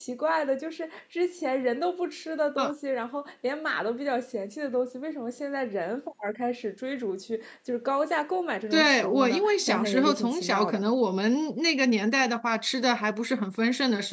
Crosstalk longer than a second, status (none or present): present